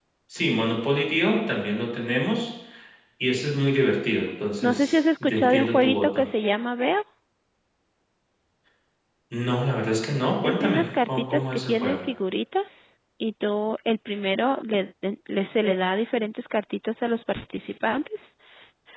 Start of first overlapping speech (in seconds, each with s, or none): 4.6 s